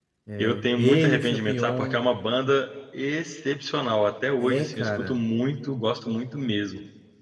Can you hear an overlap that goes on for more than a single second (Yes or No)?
Yes